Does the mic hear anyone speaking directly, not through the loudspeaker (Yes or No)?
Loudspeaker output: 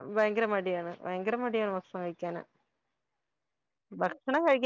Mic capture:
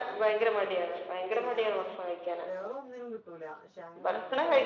Yes